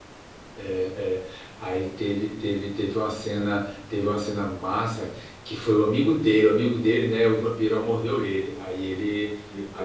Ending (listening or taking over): listening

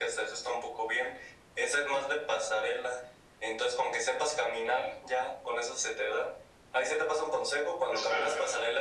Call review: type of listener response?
listening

